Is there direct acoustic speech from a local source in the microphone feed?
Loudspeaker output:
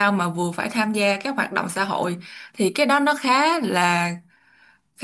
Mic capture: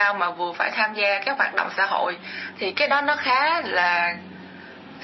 No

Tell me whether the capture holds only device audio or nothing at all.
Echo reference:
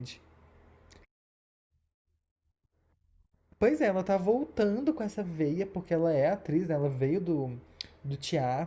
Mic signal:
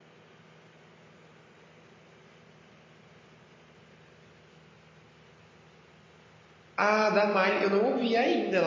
No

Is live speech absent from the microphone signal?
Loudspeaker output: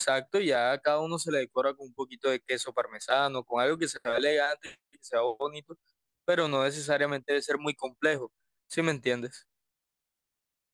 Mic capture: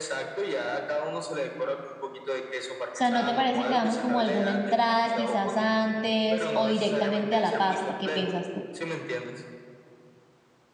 No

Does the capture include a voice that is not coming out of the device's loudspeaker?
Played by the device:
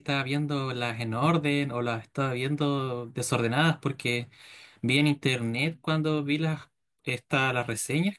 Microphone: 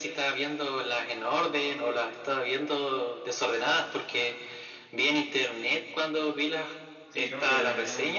Yes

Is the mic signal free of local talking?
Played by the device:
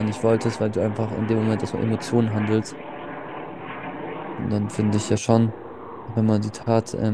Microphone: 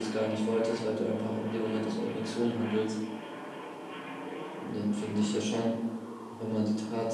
Yes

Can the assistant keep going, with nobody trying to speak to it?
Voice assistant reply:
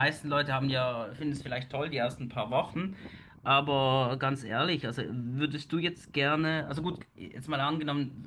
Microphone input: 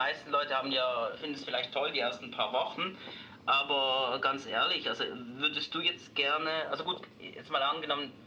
Yes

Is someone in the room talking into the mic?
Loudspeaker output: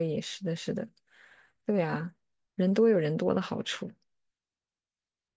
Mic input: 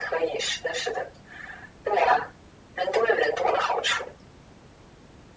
No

